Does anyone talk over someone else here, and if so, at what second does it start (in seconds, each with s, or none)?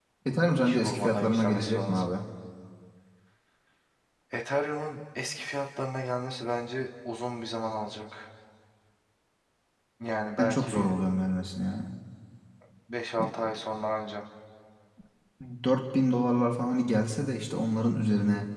0.6 s